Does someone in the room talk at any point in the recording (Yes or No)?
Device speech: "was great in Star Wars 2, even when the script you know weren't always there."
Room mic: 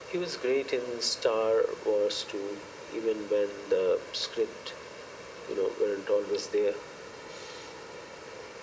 No